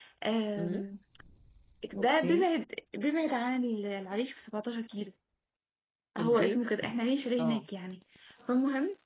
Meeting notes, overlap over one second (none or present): none